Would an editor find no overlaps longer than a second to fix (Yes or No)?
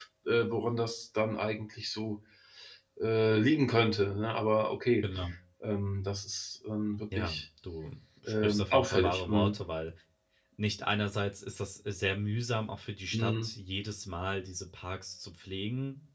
No